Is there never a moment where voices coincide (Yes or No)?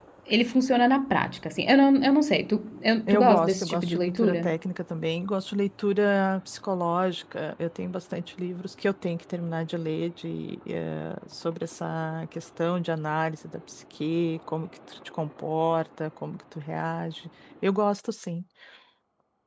No